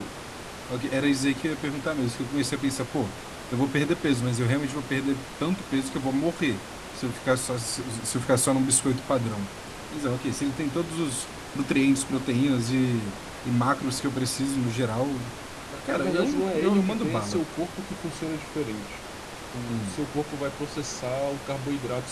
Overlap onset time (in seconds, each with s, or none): 15.9 s